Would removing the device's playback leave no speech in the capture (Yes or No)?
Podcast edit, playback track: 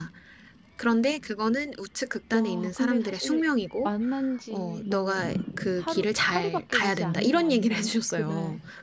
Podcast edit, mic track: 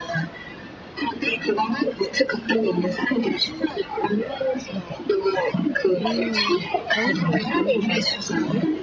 No